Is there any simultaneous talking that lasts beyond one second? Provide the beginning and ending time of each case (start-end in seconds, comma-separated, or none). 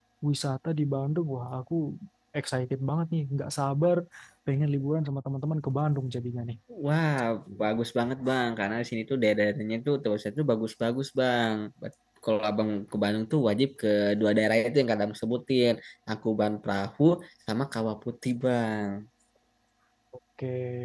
none